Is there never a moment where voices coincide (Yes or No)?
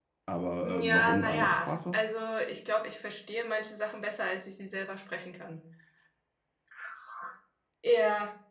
No